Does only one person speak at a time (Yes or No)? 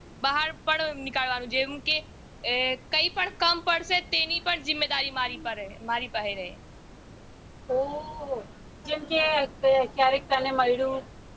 Yes